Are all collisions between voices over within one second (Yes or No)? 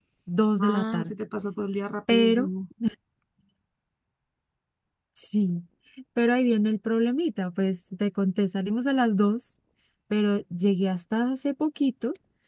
Yes